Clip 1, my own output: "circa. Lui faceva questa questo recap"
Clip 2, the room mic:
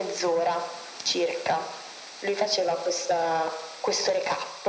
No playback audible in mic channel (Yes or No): No